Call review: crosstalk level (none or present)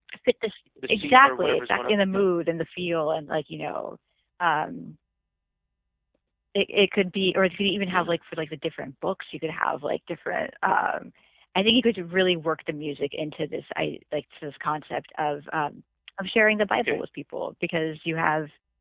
present